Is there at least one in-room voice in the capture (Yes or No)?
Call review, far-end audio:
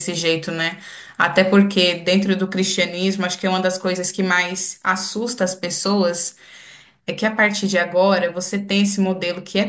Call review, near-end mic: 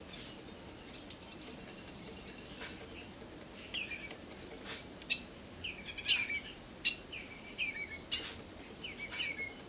No